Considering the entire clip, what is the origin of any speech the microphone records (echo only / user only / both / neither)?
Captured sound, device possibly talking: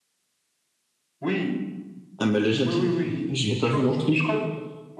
both